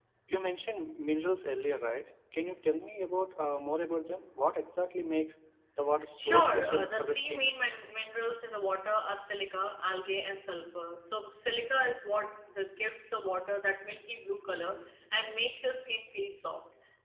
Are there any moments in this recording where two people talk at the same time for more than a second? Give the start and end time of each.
6.2-7.5

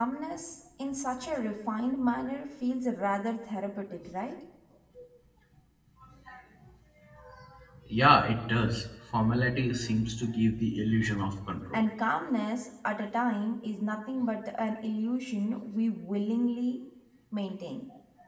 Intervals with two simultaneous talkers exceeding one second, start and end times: none

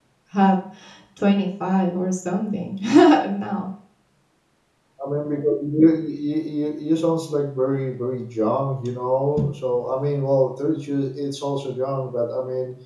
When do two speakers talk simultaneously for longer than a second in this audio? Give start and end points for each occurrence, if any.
none

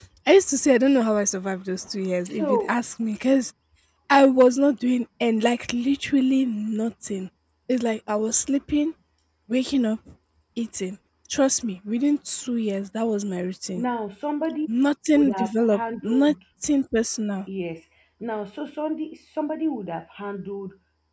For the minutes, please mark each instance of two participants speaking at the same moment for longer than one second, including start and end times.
15.1-16.3

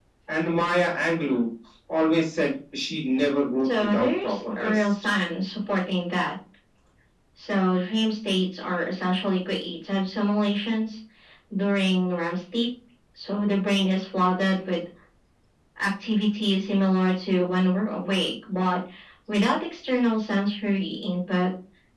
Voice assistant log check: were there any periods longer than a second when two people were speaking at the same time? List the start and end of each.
3.6-4.9

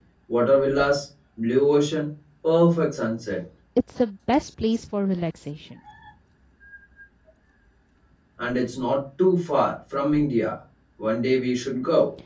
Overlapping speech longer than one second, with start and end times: none

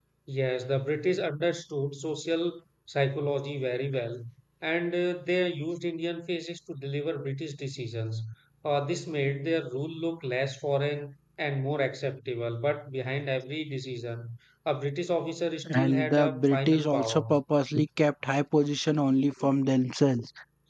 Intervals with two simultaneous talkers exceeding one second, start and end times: 15.7-17.3

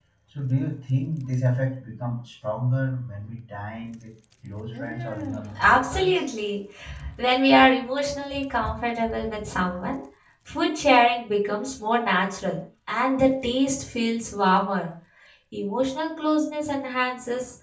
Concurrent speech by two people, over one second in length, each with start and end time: 4.7-6.2

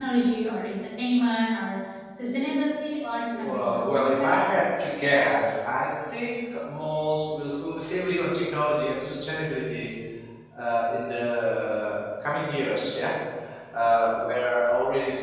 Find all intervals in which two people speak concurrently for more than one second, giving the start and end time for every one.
3.3-4.6

